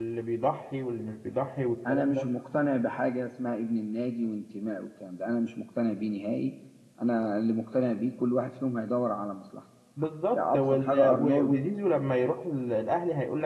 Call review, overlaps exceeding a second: present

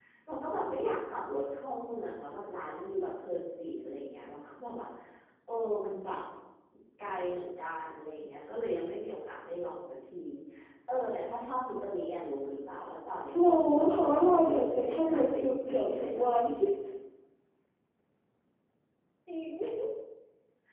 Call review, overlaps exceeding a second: present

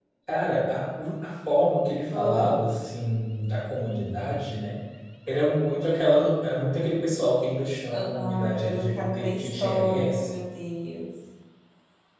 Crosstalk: present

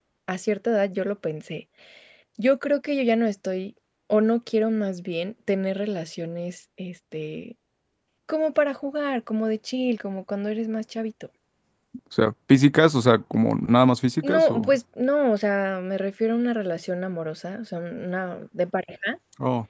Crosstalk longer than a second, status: none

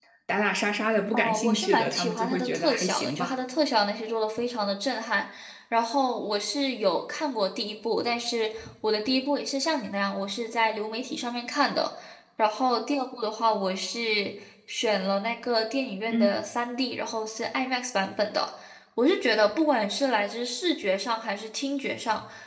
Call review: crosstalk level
present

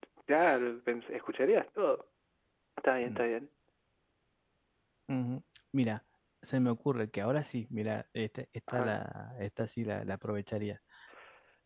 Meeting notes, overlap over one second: none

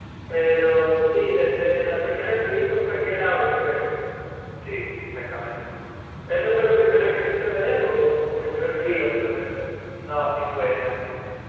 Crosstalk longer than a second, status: none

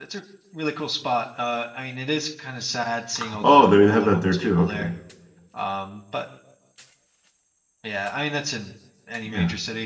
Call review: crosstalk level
present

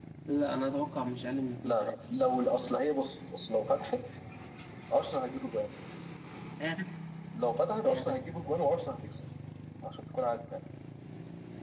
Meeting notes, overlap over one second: none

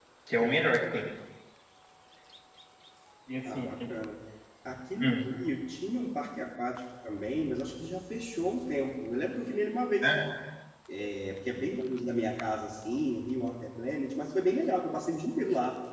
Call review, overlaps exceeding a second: none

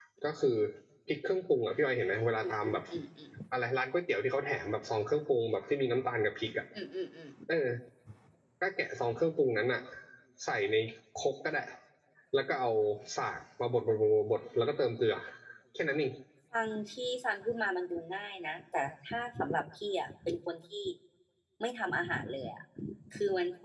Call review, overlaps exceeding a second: none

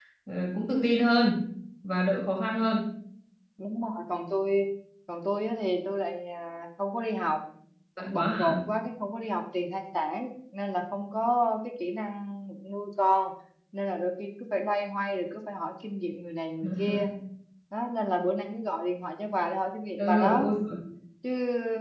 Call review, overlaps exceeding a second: none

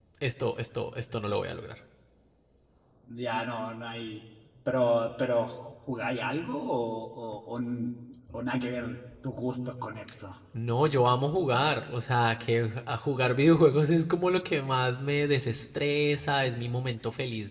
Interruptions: none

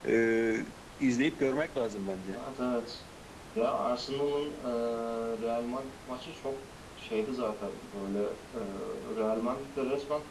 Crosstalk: none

